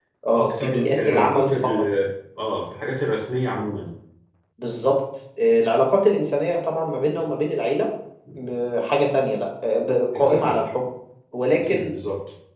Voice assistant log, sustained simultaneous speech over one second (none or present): present